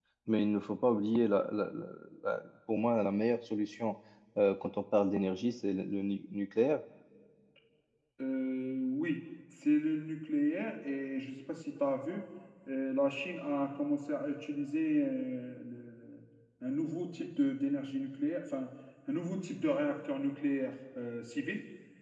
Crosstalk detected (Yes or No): No